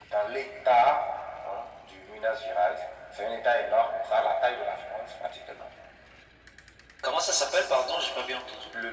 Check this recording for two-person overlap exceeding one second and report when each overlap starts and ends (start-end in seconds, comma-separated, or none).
none